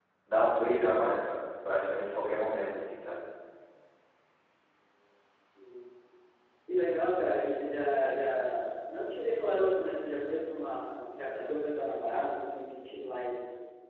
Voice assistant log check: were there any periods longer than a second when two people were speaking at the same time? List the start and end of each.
none

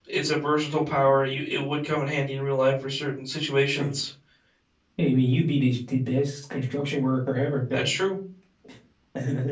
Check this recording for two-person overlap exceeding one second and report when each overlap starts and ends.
none

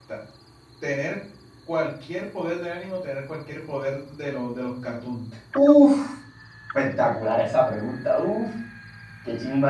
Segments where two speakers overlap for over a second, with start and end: none

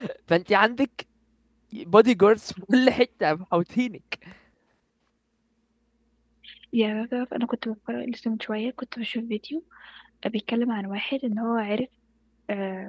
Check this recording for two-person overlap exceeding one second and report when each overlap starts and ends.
none

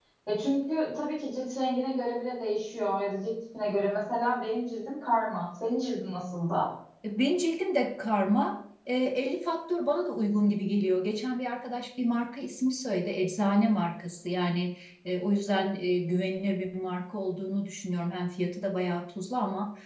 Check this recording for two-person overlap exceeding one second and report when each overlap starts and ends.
none

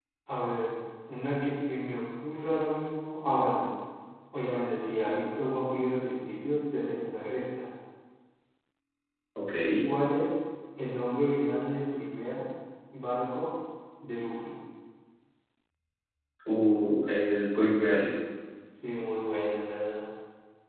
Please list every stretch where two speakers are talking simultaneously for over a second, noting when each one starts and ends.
none

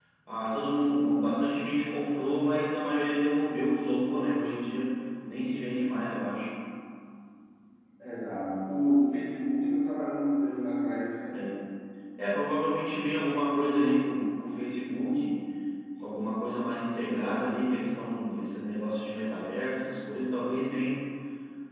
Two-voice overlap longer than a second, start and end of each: none

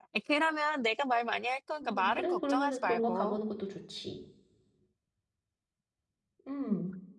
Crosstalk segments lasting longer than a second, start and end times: 1.8-3.4

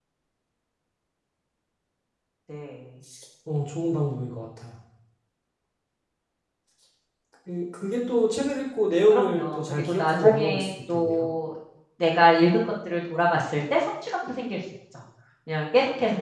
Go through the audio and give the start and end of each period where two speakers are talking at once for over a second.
9.1-11.3

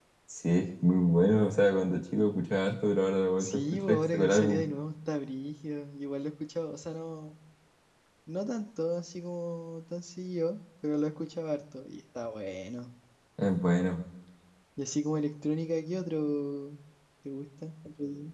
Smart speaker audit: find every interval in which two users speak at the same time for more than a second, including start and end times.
3.4-4.6

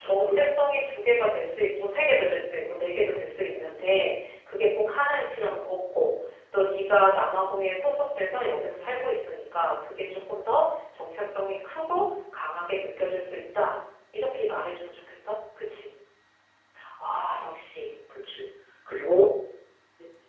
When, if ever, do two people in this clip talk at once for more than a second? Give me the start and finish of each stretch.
none

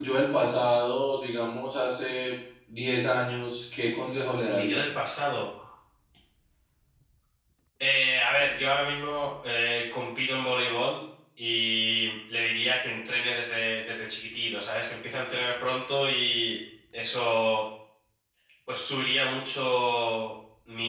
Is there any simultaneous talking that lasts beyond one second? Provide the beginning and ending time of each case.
none

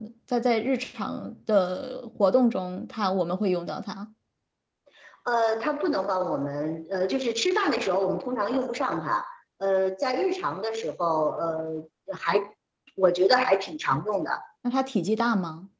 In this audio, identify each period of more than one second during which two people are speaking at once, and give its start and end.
none

